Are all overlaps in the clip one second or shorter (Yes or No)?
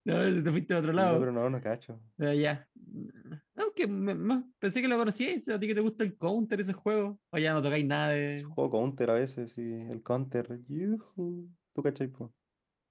Yes